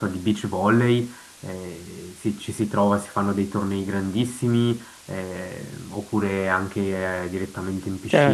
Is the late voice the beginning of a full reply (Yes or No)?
Yes